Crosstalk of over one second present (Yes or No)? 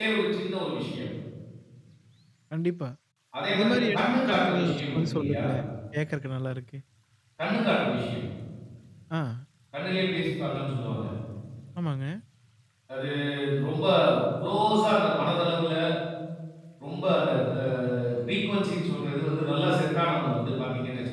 Yes